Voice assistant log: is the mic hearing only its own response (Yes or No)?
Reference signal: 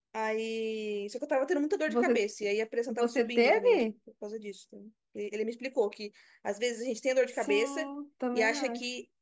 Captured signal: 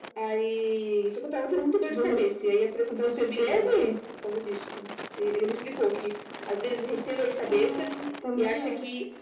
Yes